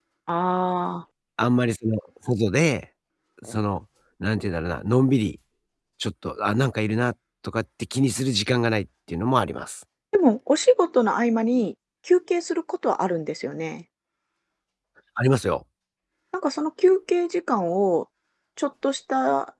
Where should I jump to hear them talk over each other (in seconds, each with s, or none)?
none